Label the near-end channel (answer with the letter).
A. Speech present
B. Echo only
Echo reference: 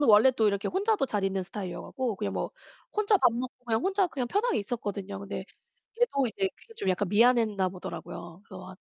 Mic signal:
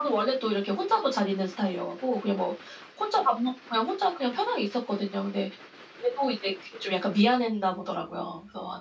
B